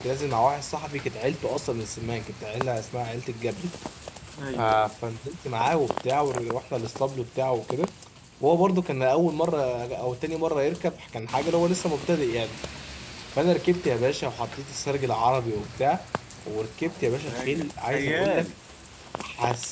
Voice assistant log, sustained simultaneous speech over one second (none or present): present